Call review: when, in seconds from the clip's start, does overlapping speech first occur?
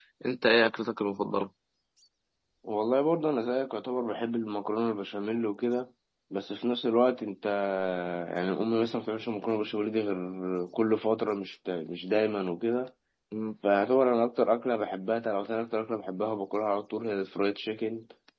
none

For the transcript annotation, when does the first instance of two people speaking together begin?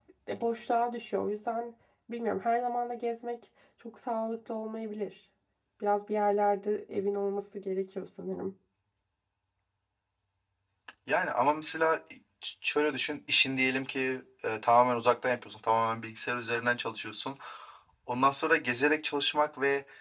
none

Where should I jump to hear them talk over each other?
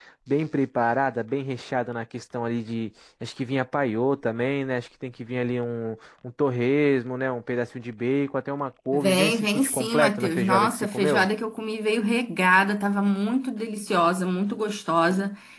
8.9 s

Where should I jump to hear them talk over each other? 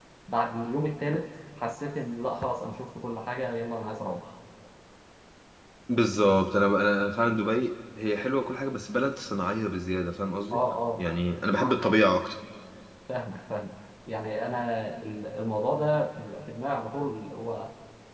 none

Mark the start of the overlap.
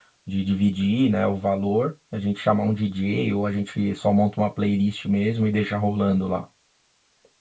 none

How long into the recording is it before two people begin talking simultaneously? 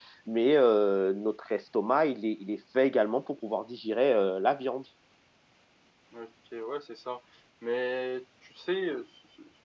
none

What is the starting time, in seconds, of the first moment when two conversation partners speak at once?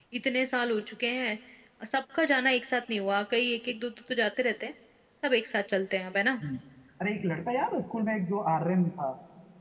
none

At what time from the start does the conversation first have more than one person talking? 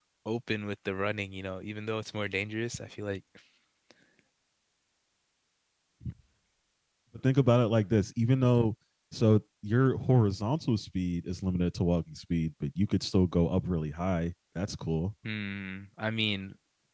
none

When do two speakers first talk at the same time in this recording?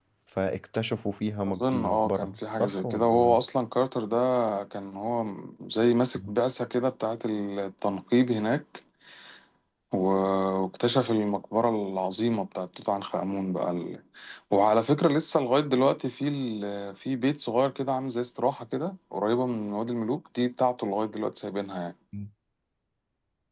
1.4 s

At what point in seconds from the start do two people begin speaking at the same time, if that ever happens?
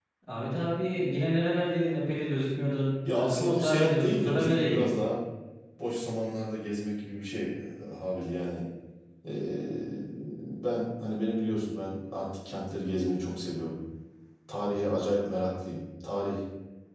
3.0 s

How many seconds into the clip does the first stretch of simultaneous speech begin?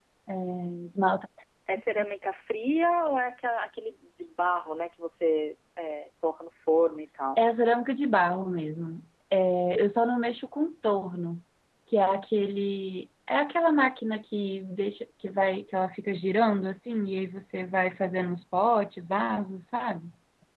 none

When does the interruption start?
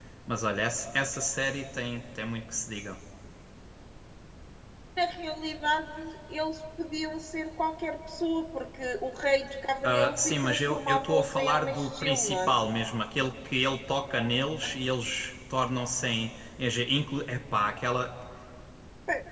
9.8 s

